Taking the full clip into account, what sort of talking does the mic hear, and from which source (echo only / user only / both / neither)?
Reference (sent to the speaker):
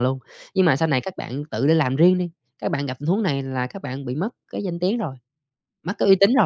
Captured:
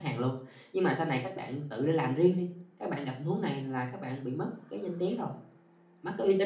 echo only